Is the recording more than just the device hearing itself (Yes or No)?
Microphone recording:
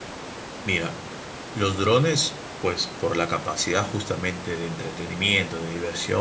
Yes